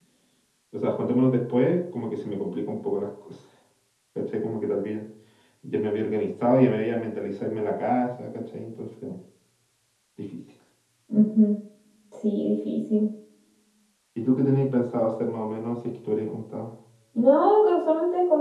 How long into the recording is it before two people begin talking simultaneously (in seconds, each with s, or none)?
none